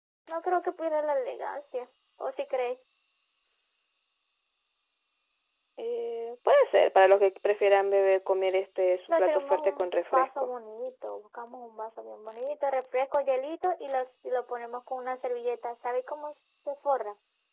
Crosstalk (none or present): present